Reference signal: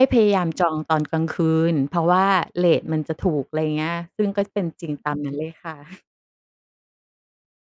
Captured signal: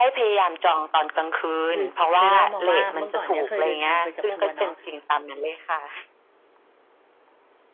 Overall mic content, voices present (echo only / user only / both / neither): both